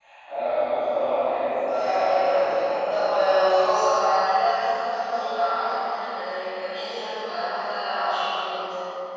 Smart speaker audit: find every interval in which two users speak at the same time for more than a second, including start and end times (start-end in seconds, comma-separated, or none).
1.7-3.1